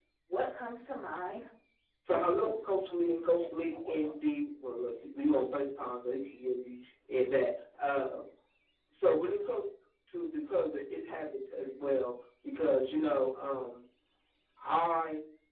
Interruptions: present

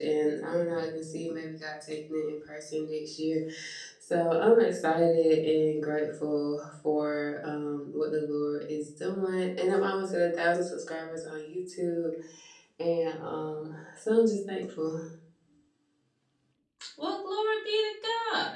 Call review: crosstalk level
none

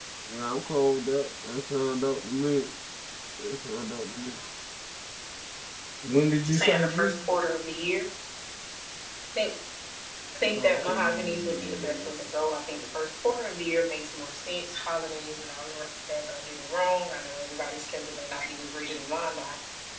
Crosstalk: present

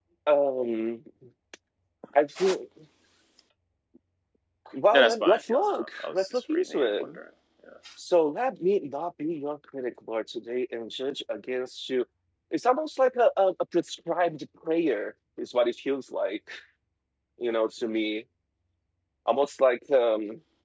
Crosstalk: present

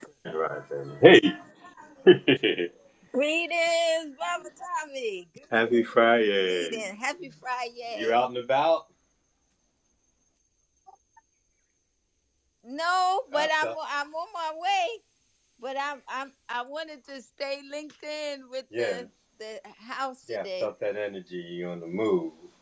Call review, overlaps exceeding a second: none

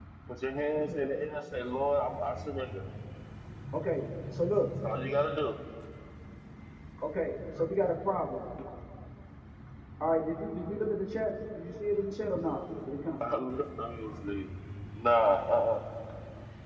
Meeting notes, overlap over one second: none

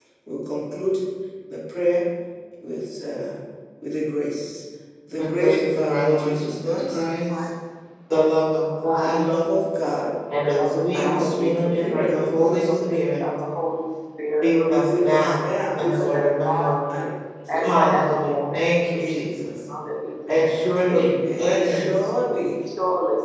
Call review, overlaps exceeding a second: present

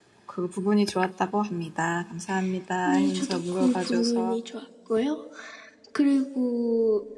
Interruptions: present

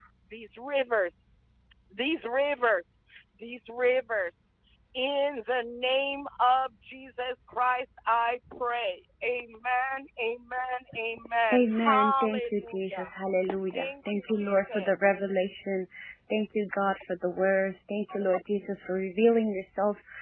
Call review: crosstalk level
present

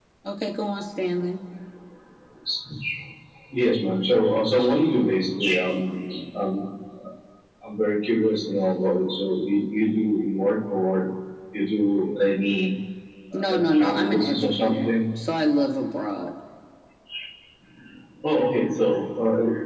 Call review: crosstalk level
present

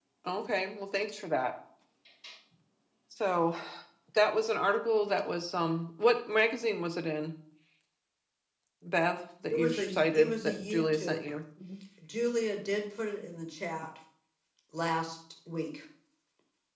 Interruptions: present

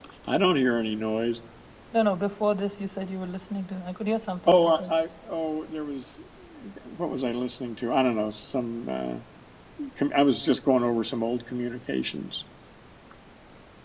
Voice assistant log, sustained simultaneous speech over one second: none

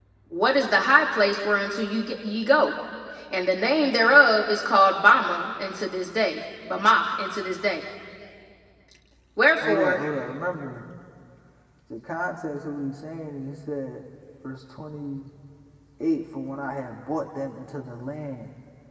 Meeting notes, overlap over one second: none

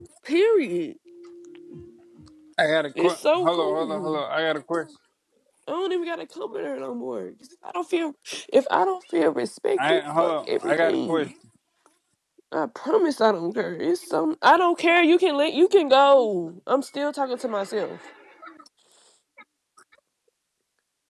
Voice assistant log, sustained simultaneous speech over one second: present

